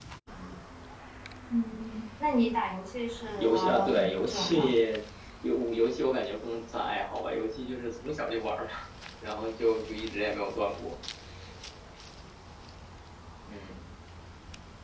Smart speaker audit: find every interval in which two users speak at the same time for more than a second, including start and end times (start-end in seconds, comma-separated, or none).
3.4-4.8